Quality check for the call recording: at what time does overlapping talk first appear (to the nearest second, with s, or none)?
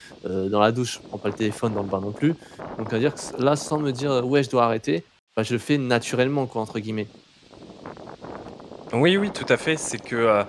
none